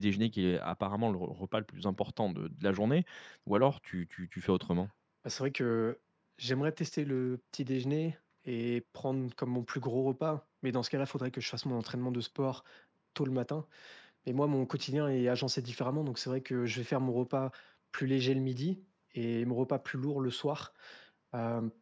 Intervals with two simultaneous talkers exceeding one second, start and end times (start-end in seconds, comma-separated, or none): none